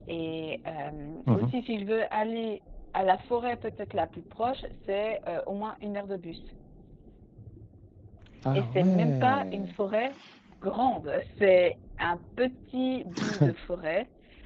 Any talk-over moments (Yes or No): Yes